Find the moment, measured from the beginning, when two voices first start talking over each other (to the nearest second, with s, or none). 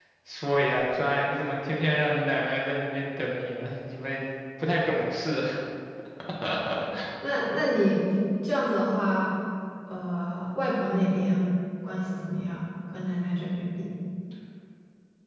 none